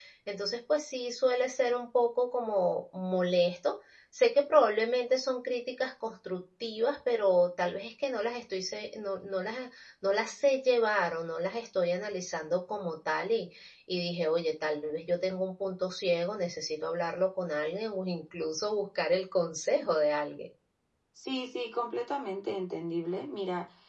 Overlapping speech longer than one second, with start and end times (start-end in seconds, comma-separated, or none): none